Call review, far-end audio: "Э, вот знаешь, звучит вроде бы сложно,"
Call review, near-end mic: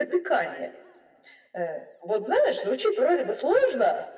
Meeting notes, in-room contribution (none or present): none